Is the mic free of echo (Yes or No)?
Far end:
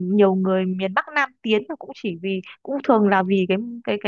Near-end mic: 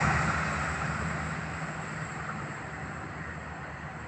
Yes